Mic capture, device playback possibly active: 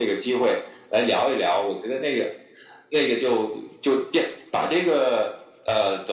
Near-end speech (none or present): none